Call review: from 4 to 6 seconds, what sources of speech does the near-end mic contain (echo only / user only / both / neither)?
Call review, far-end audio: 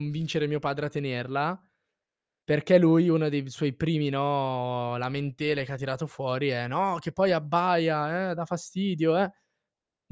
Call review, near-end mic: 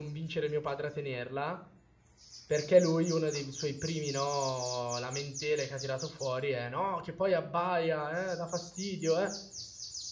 echo only